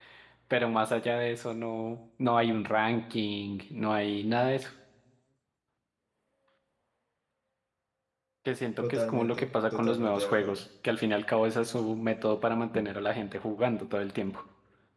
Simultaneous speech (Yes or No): Yes